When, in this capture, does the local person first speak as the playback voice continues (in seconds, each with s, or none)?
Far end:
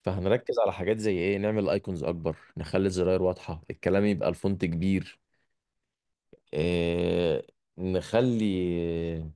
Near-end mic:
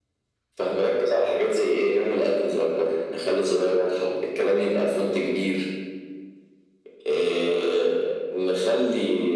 none